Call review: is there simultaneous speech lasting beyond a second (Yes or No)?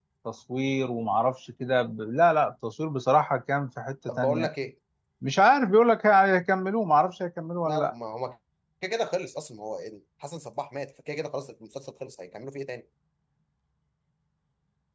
No